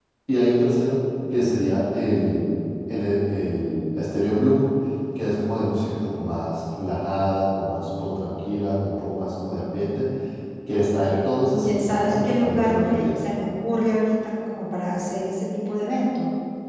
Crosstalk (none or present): present